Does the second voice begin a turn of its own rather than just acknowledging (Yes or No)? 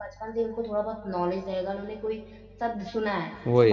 No